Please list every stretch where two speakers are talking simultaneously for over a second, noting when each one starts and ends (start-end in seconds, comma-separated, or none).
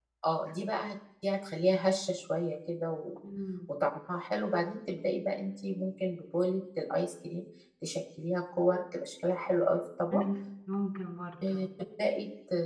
none